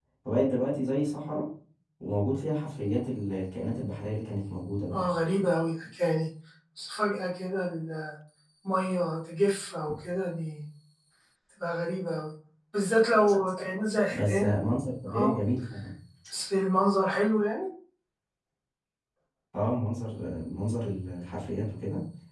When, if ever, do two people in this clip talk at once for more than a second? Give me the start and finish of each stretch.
none

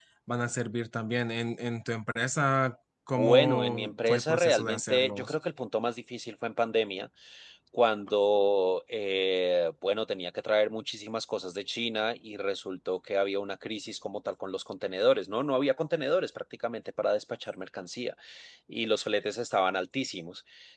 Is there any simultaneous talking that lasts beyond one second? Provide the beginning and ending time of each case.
3.2-5.4

